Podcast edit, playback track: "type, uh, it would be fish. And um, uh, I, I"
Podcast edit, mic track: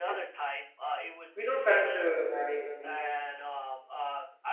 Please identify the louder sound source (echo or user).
user